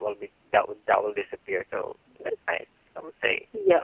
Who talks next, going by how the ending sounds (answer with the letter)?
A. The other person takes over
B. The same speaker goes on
A